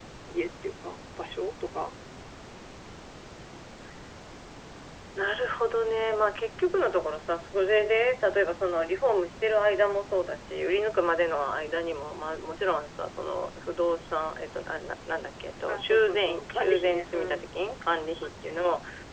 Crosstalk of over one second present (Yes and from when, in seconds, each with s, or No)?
Yes, from 15.7 s